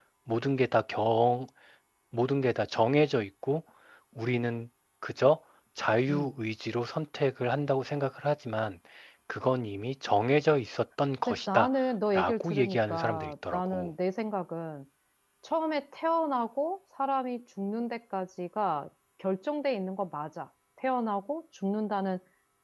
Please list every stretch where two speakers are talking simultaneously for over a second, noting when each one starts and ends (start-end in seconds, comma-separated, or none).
12.1-13.9